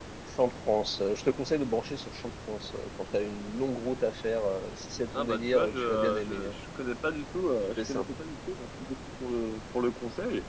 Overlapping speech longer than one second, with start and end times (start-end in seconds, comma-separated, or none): 5.2-6.6